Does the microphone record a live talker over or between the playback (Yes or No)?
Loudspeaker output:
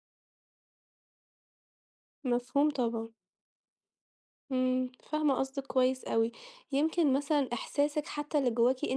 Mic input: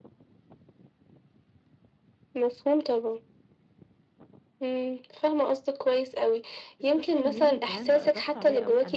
Yes